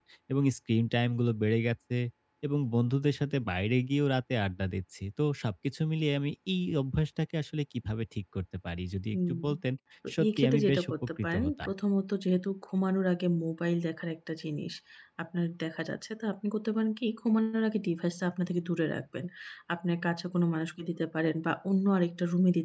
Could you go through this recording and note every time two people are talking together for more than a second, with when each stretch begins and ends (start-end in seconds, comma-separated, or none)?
10.2-11.7